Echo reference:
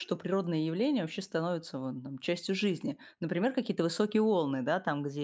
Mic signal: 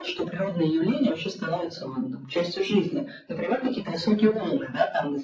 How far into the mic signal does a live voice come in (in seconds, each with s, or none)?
none